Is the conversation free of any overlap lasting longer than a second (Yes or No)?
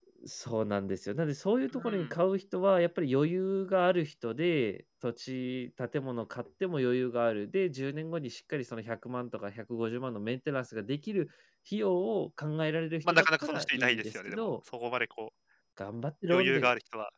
No